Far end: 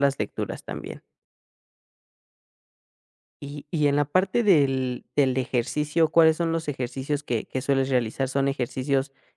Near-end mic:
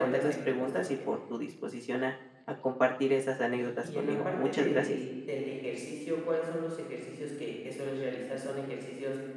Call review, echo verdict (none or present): present